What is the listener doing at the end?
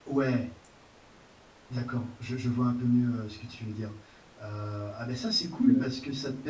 listening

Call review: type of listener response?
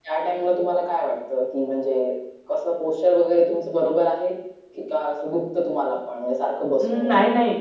taking over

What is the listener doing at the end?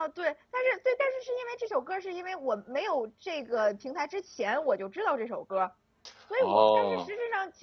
listening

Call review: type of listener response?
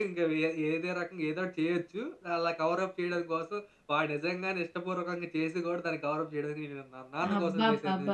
taking over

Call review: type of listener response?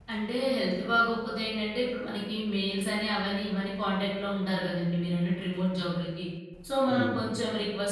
listening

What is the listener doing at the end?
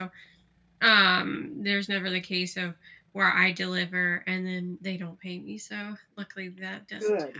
taking over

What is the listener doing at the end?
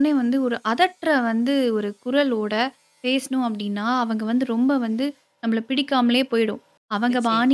listening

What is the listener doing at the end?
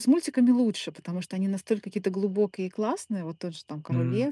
listening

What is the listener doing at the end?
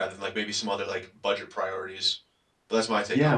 taking over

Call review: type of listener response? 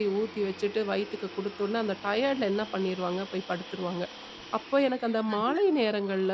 listening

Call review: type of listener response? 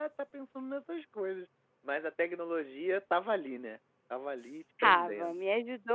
taking over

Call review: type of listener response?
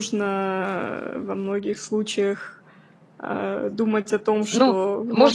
taking over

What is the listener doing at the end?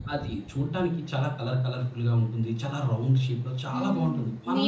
taking over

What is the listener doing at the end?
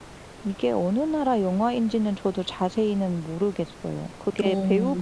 listening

